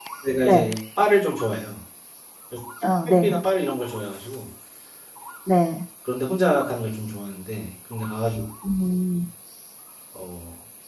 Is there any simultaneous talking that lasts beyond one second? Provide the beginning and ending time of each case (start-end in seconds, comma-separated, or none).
none